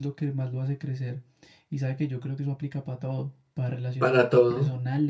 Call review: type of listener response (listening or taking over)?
listening